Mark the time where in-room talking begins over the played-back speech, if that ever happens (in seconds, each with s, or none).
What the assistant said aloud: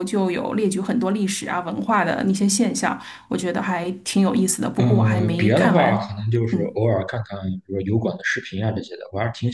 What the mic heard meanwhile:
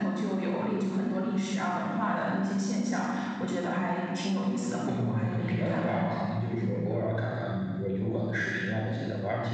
none